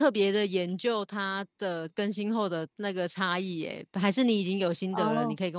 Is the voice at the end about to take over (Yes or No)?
Yes